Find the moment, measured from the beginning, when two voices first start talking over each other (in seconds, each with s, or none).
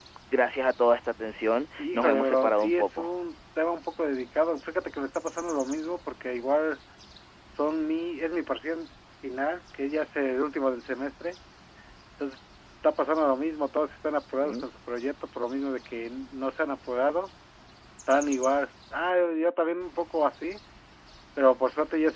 1.8 s